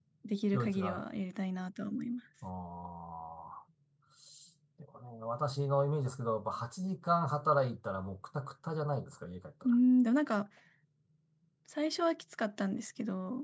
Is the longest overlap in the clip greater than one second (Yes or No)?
No